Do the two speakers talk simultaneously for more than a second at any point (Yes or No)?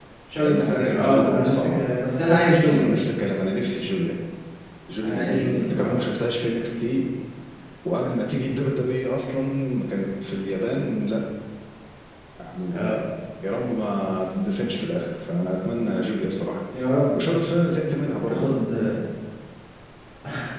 Yes